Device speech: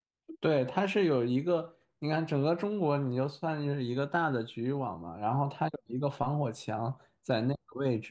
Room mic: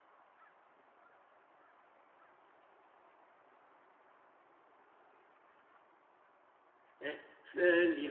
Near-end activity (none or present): present